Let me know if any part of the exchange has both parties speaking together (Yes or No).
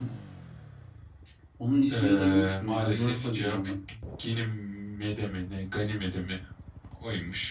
Yes